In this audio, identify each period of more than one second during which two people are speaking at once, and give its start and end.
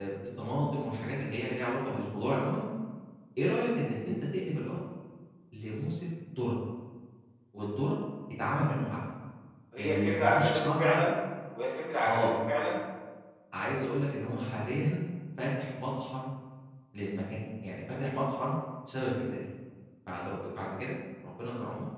9.8-11.0

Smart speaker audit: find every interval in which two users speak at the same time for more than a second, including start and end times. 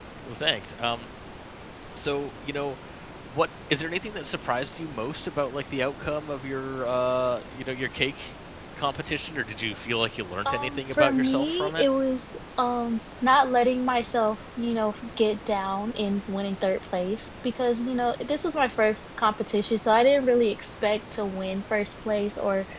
10.5-11.8

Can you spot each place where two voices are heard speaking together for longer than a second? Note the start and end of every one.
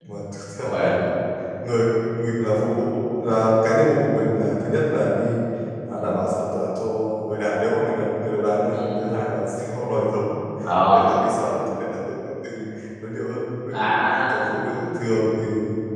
none

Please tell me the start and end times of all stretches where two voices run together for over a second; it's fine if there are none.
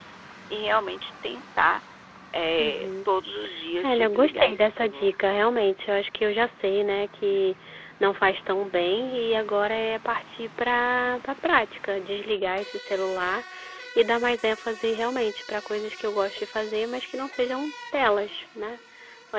3.8-5.1

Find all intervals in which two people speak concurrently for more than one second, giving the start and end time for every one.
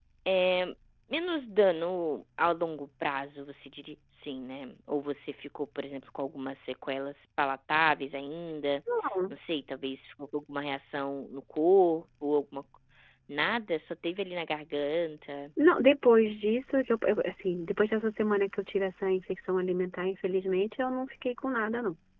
none

